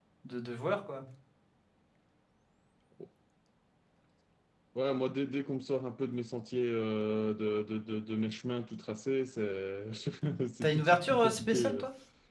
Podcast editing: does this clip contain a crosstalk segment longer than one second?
Yes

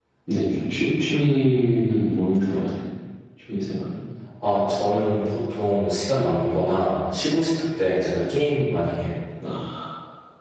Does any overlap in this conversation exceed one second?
No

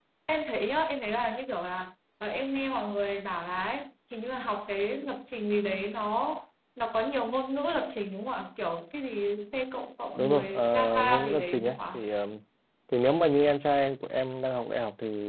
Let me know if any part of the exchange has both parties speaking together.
Yes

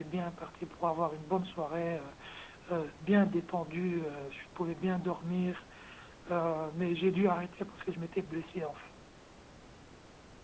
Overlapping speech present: No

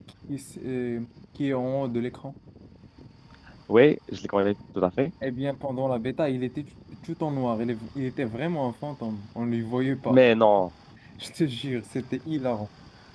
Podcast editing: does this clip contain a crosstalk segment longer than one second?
No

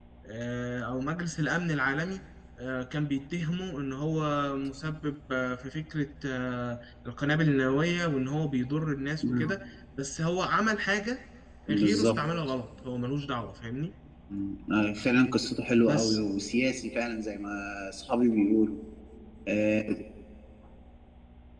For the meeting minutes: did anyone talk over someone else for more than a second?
No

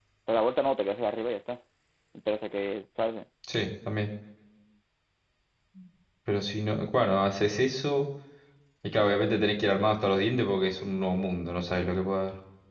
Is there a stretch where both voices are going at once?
No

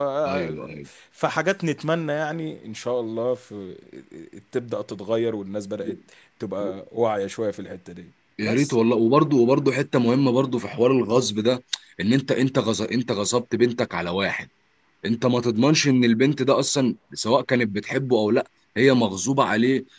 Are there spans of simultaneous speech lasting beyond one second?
No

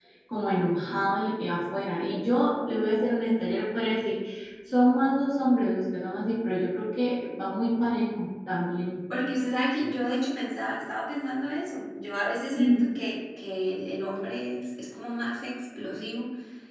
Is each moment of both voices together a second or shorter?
Yes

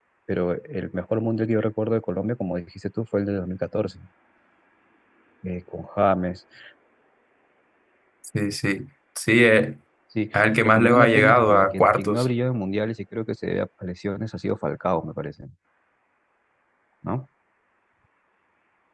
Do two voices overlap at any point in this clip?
Yes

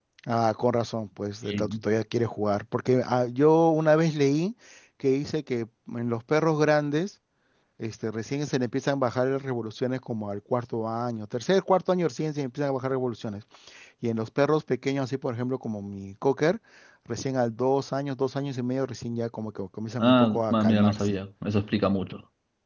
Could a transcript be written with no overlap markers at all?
No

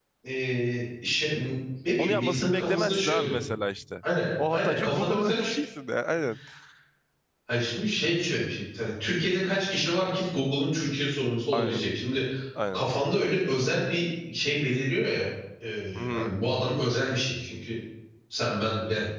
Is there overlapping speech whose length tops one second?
Yes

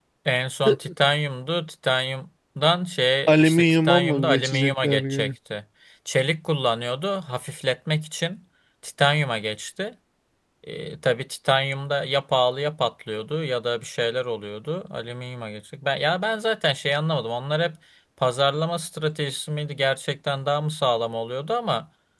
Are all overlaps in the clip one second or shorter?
No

